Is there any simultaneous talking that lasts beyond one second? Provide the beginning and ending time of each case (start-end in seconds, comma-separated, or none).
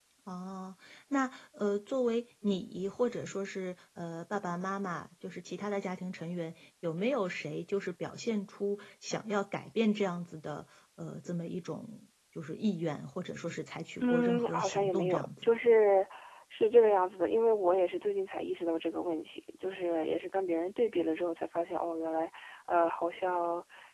14.0-15.5